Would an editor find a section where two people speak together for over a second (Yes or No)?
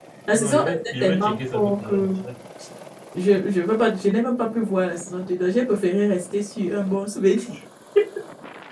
Yes